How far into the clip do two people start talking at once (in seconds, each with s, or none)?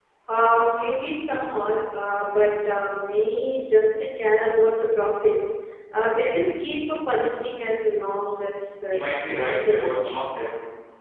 8.9 s